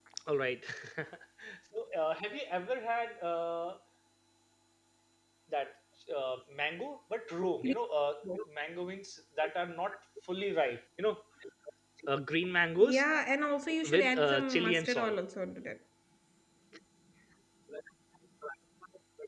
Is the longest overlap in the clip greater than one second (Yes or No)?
Yes